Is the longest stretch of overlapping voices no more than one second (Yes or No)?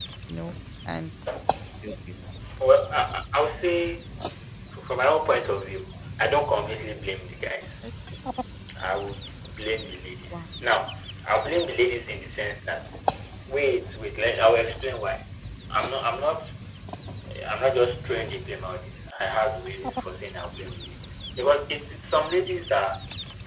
Yes